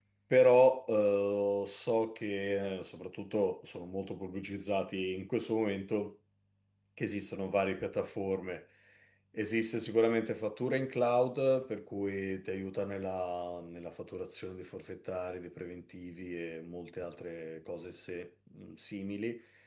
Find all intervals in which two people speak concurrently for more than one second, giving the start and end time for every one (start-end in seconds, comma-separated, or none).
none